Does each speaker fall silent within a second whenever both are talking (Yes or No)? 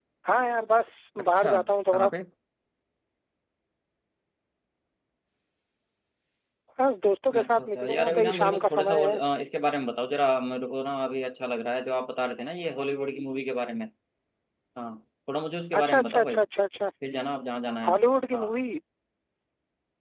No